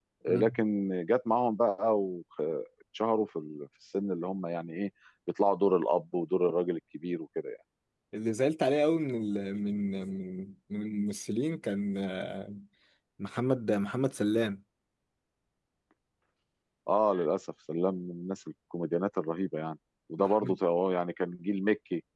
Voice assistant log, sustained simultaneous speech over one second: none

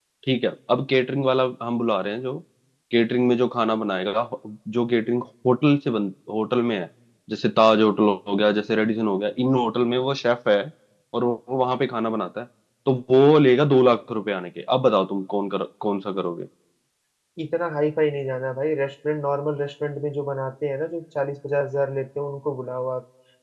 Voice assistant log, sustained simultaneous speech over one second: none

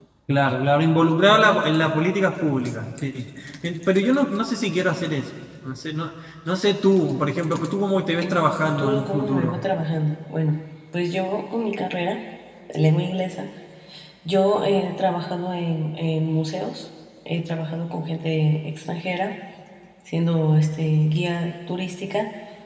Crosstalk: present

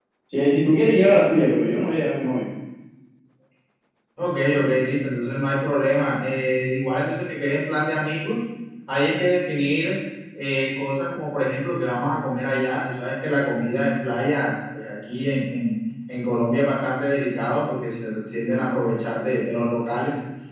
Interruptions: none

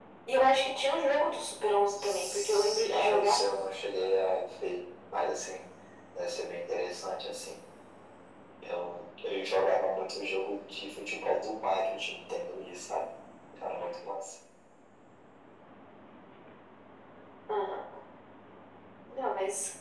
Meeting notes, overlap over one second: present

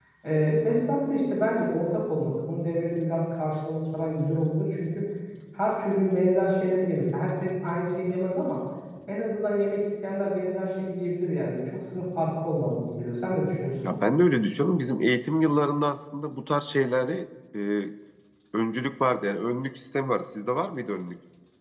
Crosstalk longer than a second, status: none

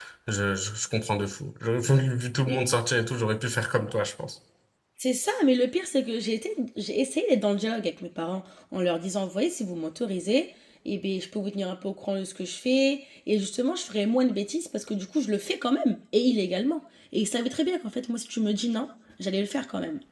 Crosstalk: none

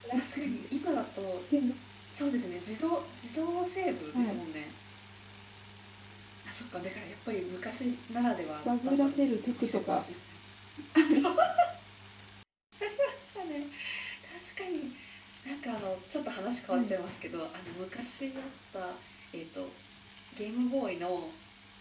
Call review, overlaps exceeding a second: present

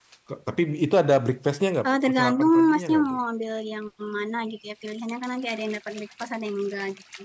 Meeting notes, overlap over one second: present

